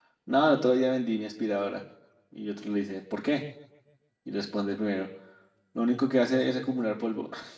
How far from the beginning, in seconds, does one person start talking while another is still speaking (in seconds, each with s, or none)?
none